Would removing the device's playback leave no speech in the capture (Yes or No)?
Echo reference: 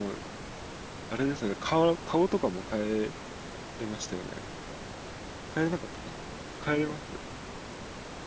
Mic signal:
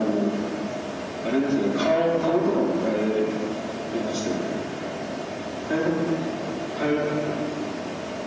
Yes